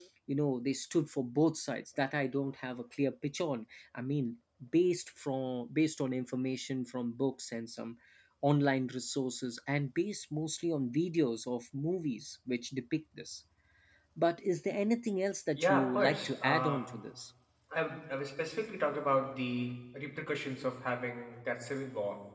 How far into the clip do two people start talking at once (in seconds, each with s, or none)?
15.6 s